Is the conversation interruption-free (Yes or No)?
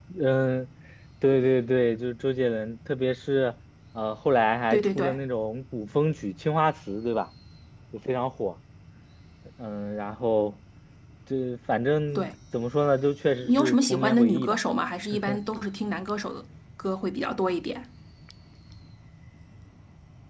No